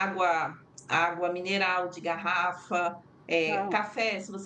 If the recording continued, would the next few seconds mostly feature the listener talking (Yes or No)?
No